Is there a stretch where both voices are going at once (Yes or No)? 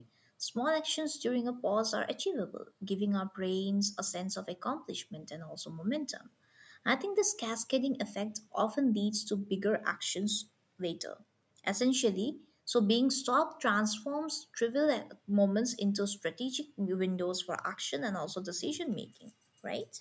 No